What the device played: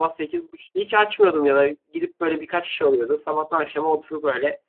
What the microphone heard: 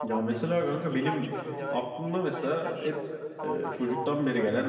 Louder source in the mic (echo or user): user